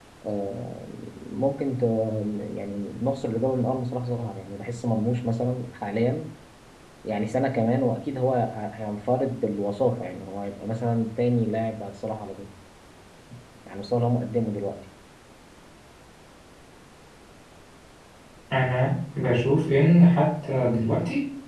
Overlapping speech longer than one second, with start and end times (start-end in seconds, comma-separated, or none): none